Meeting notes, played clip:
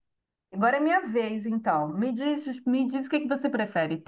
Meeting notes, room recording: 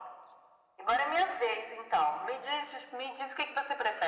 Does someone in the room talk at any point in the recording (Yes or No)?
No